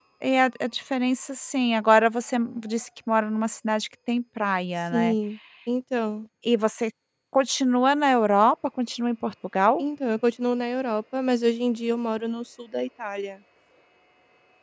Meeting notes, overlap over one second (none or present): none